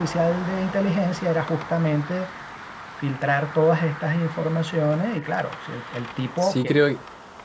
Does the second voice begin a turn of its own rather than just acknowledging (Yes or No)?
Yes